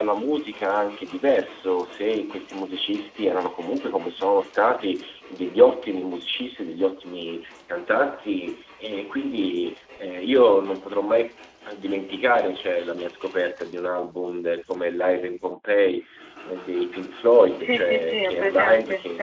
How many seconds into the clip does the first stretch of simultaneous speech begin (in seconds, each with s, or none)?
17.6 s